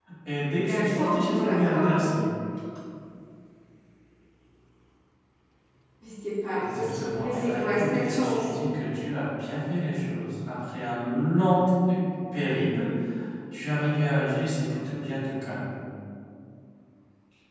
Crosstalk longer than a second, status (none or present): present